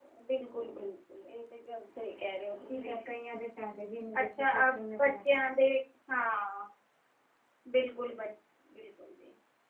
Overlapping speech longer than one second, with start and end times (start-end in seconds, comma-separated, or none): 4.2-5.4